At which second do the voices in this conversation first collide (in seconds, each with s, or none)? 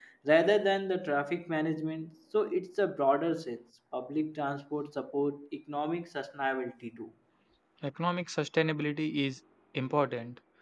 none